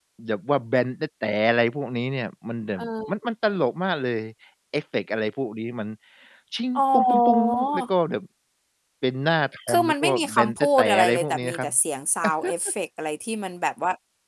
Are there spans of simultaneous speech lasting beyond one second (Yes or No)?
Yes